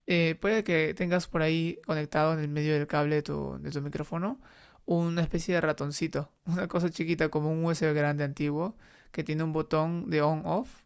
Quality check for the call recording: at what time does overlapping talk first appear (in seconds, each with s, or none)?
none